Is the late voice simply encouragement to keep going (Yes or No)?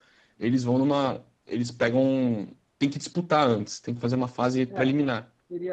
No